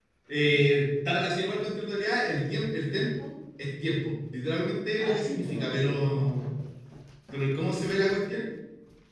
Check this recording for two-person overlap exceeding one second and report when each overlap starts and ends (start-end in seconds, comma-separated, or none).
5.0-6.3